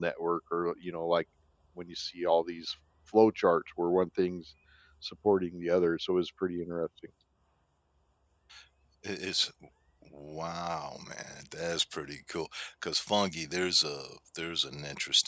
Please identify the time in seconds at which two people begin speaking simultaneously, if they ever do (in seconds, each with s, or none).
none